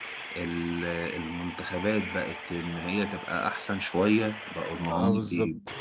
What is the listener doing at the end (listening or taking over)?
taking over